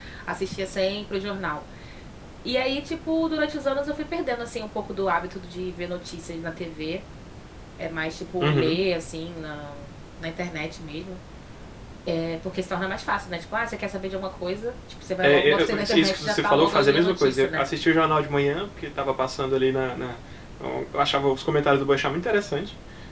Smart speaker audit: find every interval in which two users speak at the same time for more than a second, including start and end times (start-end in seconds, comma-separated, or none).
15.2-17.6